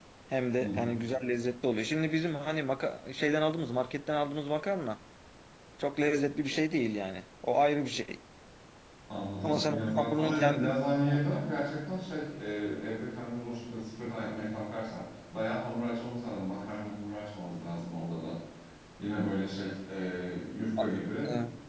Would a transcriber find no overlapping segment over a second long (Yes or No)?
No